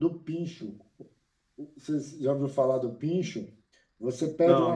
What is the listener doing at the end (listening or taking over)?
listening